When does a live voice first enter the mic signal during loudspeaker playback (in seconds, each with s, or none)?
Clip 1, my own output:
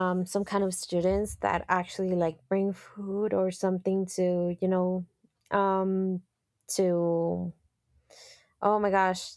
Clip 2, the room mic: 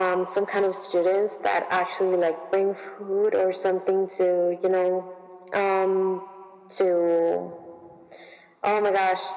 none